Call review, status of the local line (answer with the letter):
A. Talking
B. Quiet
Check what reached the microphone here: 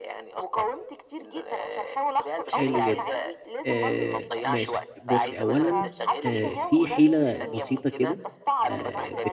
A